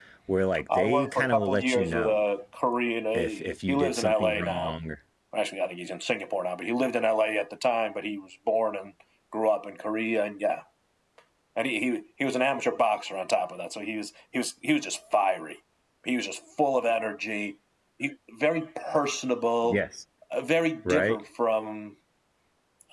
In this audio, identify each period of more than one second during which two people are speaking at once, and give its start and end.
0.7-2.2, 3.1-4.8

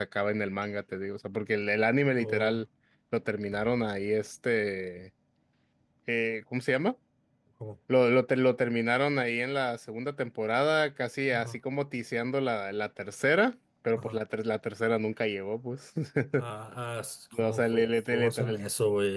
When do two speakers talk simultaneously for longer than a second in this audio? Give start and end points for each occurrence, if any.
17.3-18.6

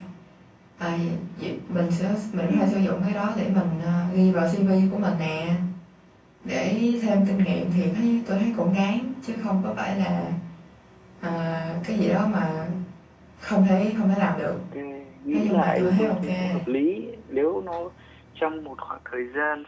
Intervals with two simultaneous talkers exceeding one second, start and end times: 15.3-16.5

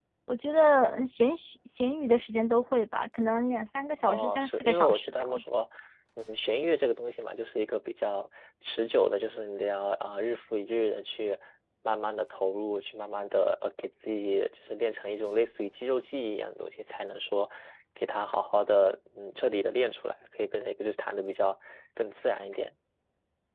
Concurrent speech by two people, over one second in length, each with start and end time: 4.0-5.5

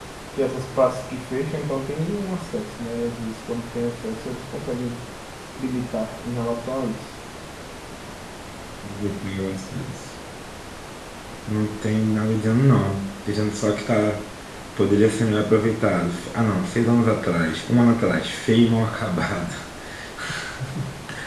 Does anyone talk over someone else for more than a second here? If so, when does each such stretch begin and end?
none

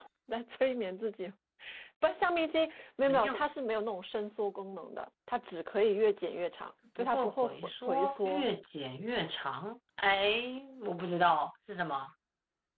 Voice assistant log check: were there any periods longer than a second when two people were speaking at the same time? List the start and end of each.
7.0-8.5

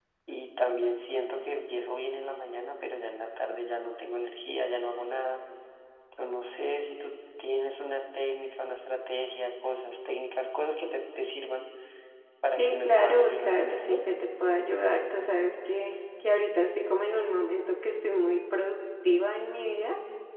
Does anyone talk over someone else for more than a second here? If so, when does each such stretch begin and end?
12.6-14.0

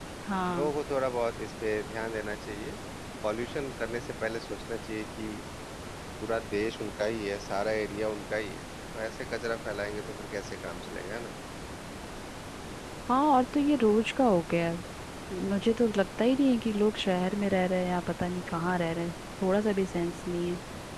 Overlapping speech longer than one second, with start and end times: none

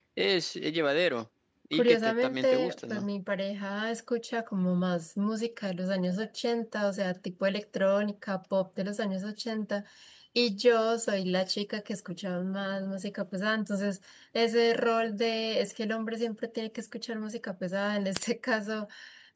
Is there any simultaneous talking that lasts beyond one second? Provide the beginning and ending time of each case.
1.7-3.0

